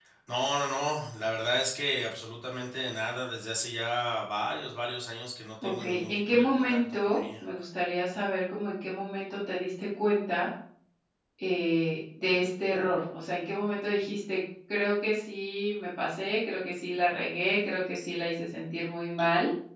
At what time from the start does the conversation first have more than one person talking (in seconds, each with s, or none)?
5.6 s